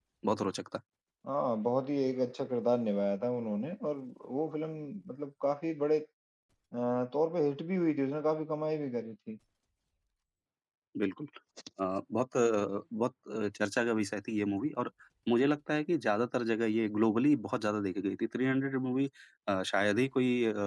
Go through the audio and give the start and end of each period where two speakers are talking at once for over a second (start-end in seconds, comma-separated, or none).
none